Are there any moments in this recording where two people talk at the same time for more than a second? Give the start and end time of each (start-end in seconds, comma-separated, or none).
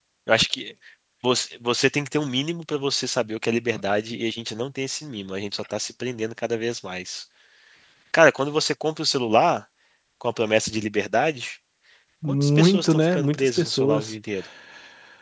12.3-14.1